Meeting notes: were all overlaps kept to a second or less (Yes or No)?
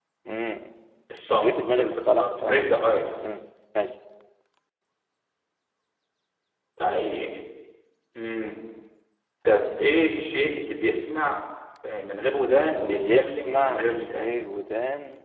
No